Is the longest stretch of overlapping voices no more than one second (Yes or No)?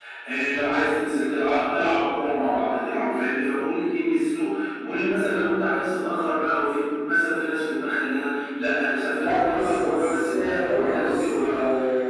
No